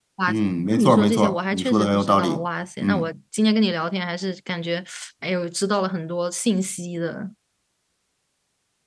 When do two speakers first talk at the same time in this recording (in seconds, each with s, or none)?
0.8 s